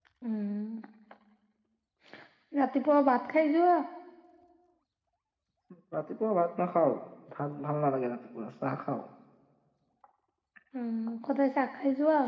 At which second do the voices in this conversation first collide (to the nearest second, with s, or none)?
none